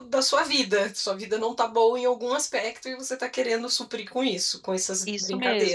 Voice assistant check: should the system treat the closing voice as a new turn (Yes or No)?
Yes